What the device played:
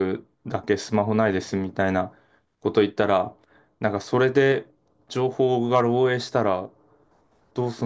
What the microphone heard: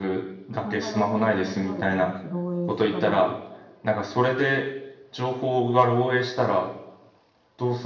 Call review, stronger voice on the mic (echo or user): echo